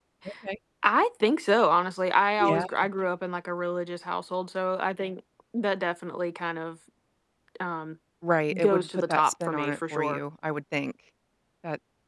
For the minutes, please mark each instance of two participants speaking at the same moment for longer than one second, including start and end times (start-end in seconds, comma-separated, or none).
8.5-10.2